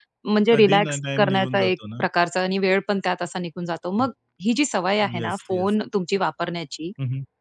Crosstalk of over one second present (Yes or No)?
Yes